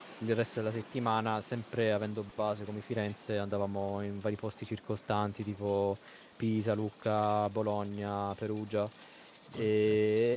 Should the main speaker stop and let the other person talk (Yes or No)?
No